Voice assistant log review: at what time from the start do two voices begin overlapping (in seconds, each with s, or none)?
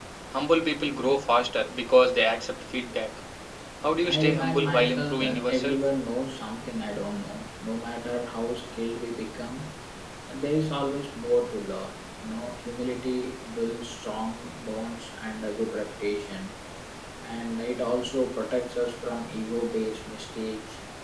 4.0 s